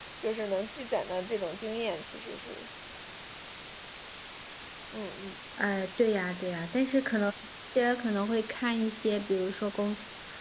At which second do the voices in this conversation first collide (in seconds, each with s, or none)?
none